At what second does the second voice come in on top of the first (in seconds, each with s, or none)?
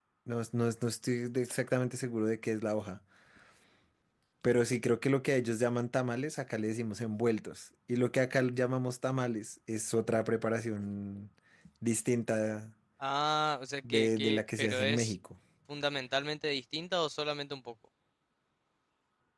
13.8 s